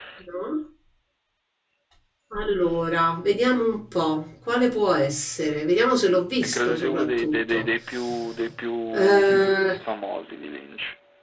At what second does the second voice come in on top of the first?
6.4 s

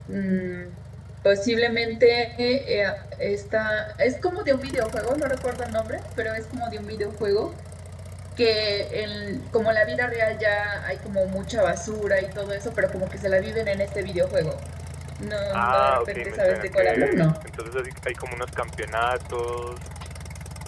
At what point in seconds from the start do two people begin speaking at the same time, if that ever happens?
15.5 s

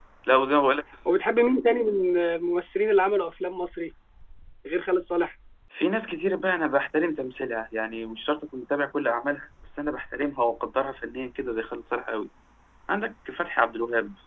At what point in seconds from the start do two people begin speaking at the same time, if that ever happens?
none

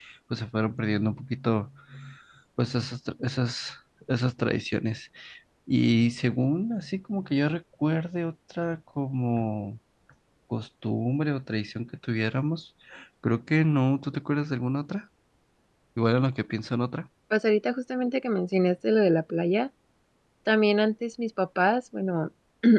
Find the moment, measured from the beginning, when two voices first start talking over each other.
none

